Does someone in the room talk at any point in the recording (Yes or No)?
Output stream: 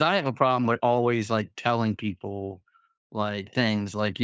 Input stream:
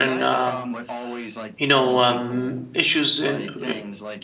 Yes